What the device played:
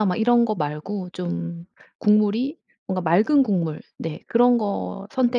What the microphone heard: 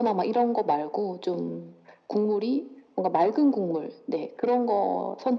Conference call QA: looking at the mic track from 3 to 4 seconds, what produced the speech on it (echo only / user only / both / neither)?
echo only